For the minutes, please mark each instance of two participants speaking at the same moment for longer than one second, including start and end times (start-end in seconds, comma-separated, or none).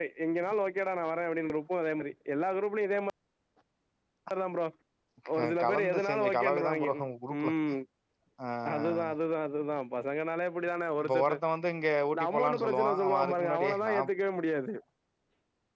5.4-6.9, 12.1-14.1